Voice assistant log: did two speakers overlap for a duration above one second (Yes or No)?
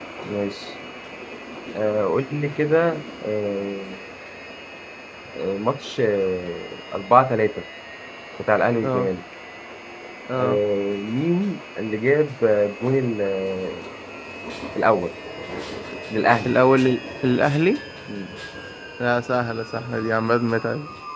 No